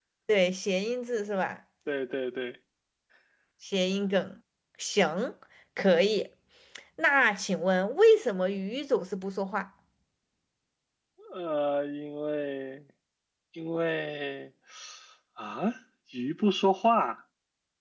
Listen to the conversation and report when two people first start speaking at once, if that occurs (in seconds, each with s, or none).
none